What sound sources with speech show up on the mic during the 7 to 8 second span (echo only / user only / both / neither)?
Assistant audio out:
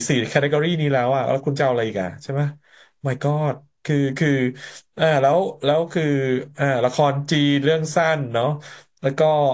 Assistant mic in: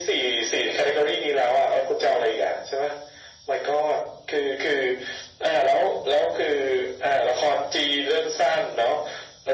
echo only